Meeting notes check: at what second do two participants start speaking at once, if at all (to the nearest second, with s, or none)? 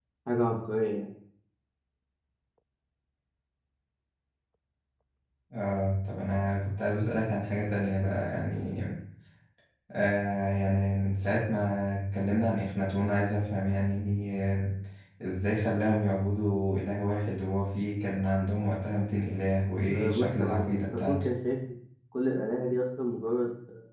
20 s